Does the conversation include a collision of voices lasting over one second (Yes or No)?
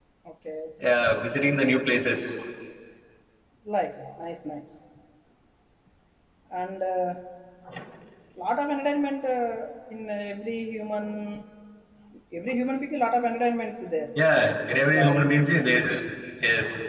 No